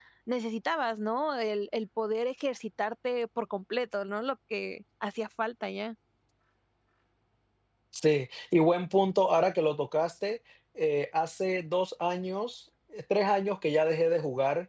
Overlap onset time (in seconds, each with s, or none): none